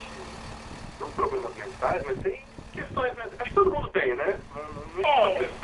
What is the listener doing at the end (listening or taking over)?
taking over